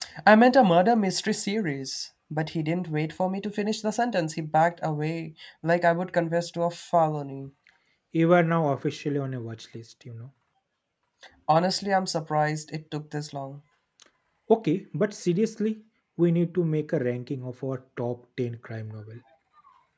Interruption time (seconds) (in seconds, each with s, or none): none